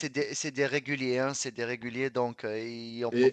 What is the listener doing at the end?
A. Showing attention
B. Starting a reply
B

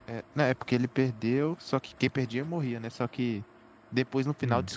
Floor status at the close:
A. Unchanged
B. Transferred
A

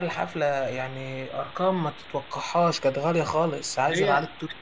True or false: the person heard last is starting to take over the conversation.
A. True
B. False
B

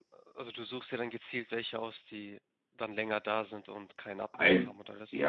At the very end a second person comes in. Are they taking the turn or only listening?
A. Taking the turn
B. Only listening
A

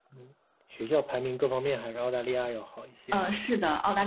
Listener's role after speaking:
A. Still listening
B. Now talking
B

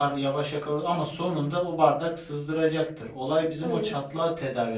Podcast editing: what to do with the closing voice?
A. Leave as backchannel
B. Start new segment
A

